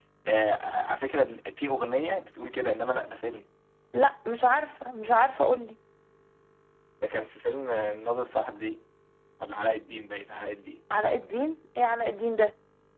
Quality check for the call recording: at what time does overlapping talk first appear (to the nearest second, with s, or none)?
none